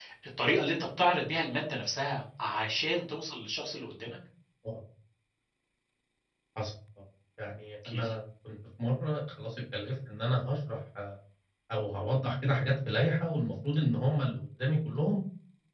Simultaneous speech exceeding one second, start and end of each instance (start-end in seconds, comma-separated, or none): none